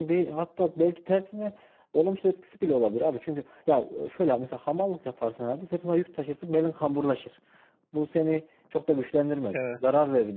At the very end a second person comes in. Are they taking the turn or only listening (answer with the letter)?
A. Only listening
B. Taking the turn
A